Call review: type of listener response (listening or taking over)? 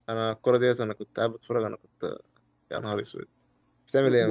taking over